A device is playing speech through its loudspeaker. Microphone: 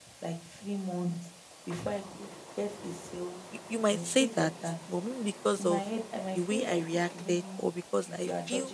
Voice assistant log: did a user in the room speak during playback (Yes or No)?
Yes